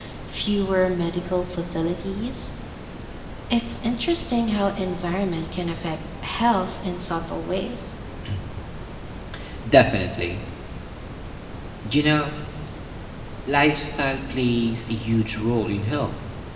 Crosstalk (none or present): none